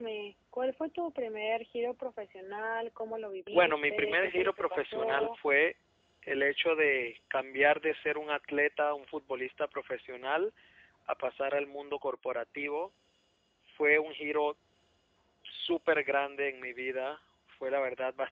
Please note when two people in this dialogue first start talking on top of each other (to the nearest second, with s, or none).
3 s